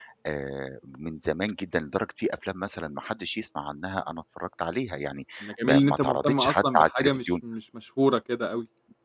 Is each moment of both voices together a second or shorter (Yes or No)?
No